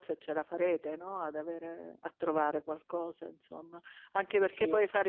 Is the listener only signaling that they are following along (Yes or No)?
Yes